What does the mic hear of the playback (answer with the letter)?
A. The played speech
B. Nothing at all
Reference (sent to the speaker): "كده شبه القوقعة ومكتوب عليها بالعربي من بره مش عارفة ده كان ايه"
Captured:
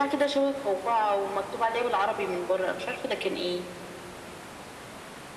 A